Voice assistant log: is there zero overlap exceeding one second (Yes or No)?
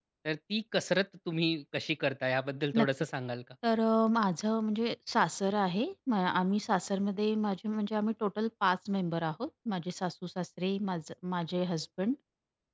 Yes